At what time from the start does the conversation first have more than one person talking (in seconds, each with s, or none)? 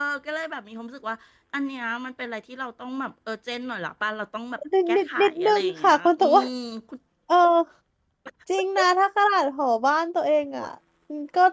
4.9 s